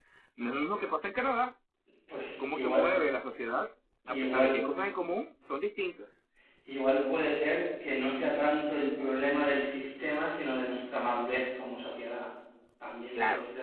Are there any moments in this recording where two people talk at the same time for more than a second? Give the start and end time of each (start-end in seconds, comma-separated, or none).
none